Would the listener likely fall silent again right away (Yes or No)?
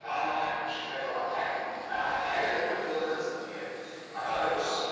Yes